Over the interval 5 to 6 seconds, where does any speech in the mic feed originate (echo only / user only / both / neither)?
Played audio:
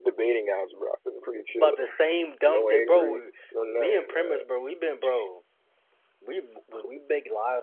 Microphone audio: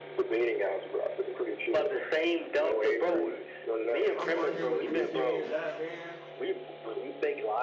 both